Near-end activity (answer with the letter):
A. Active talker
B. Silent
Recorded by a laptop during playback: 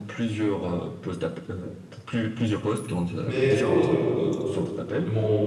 A